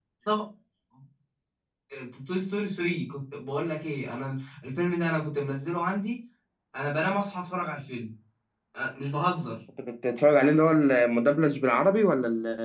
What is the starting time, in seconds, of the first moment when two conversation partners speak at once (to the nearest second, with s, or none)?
none